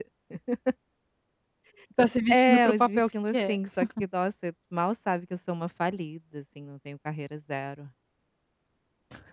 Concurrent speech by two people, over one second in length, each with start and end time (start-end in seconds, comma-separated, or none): 2.3-3.5